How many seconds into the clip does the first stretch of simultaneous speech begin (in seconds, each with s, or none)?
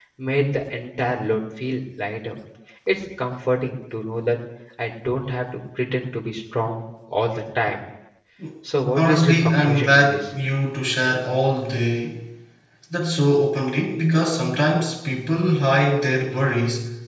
8.9 s